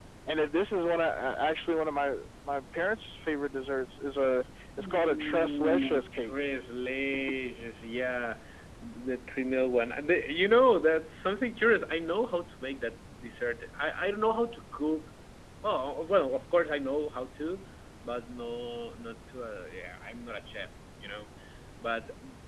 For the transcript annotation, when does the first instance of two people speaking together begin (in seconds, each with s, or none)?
4.8 s